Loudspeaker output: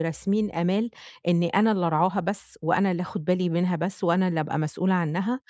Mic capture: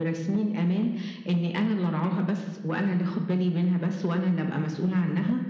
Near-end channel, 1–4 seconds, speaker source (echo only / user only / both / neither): echo only